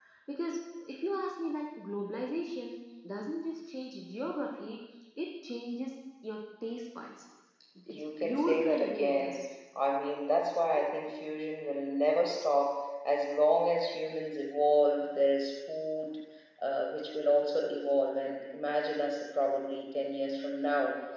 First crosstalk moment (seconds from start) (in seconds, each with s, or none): 7.9 s